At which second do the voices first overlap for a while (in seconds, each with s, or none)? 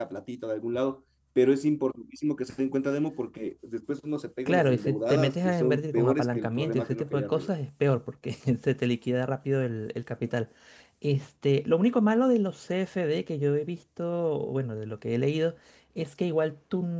4.5 s